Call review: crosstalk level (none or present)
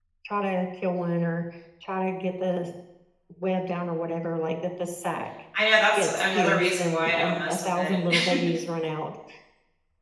present